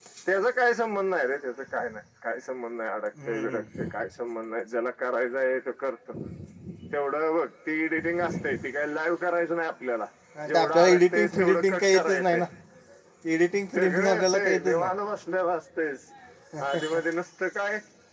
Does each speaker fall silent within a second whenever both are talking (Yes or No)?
No